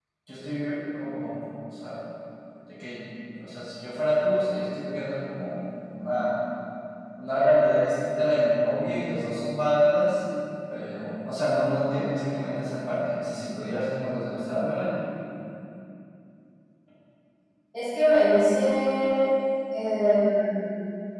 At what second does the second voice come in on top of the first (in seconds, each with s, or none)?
none